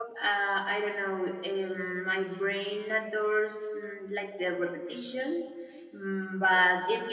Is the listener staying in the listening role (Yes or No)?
Yes